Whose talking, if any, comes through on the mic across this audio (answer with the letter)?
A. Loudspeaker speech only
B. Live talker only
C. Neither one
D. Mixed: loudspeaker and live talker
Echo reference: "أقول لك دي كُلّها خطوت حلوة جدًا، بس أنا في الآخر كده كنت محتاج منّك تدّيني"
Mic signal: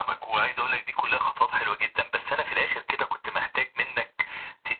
A